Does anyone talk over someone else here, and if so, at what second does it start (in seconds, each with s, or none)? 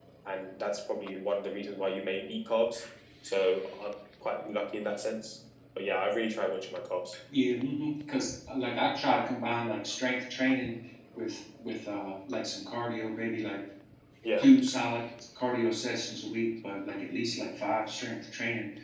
none